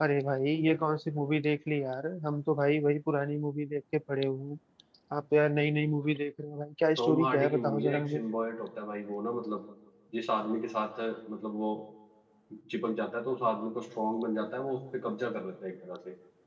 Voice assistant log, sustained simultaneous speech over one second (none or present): present